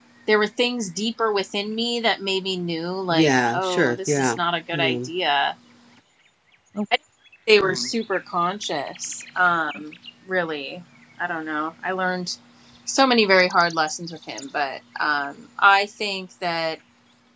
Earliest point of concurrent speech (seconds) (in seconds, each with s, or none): 3.1 s